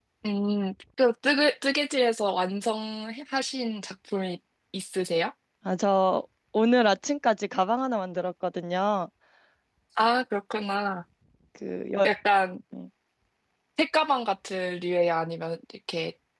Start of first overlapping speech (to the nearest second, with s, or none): none